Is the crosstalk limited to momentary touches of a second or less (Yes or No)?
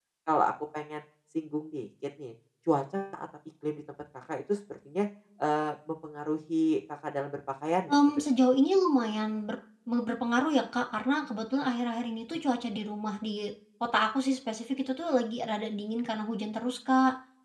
Yes